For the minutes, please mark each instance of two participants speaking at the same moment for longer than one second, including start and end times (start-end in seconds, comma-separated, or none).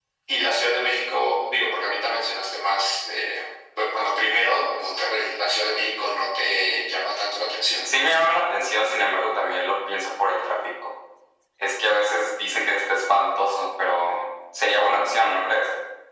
none